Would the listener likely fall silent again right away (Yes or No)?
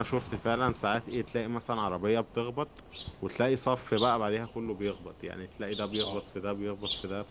Yes